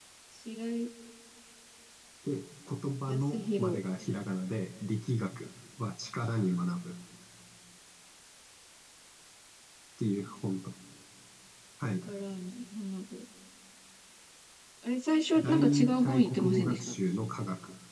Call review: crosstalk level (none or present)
present